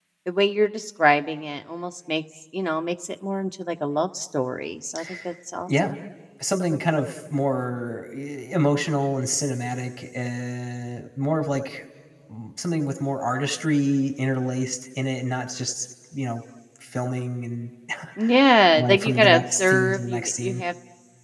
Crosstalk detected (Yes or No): Yes